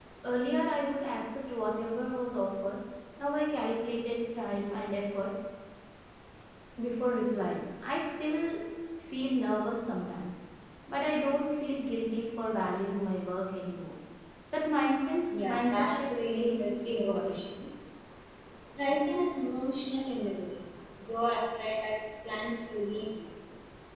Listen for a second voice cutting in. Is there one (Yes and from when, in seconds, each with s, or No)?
Yes, from 15.3 s